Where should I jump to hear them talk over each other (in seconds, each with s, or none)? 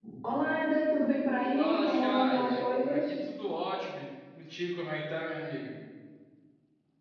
1.6 s